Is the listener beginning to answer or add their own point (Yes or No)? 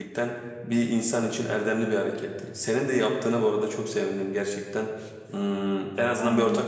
Yes